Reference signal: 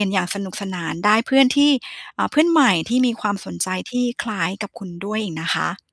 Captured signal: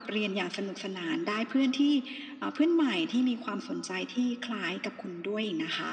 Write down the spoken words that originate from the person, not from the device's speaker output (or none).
none